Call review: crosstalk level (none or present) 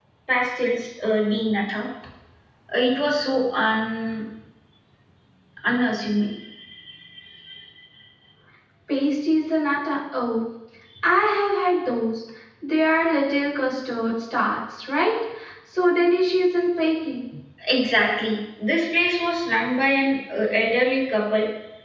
none